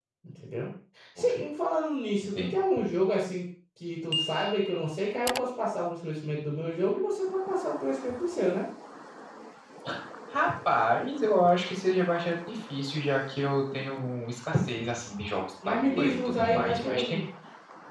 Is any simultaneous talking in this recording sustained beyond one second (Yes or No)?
Yes